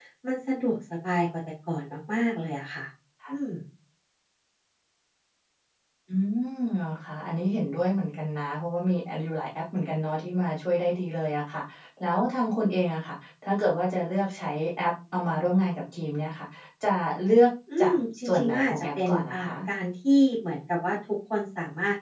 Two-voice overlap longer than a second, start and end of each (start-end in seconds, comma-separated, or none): 17.8-19.5